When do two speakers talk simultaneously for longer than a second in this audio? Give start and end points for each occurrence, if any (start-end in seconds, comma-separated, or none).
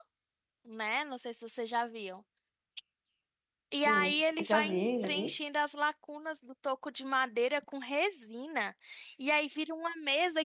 3.8-5.3